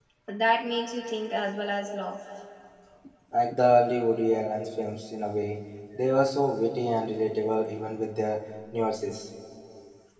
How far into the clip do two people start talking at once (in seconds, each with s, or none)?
none